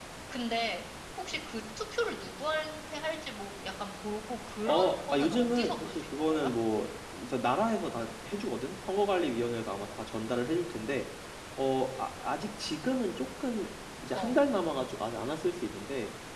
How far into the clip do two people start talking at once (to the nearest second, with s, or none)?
5 s